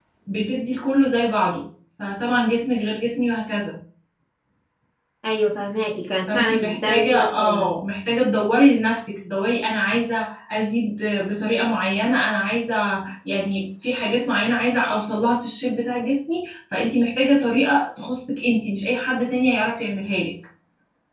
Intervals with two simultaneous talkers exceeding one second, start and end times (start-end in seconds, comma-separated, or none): 6.3-7.7